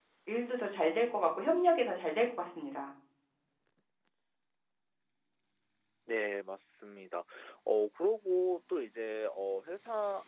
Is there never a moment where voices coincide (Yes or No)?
Yes